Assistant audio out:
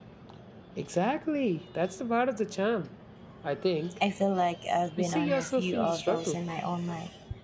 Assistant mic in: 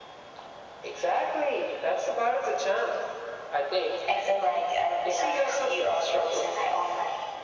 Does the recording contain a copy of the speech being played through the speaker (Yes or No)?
Yes